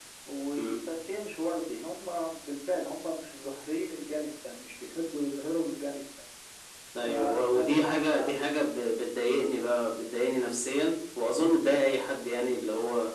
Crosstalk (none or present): present